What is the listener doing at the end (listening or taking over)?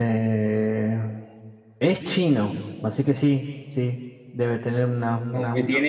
taking over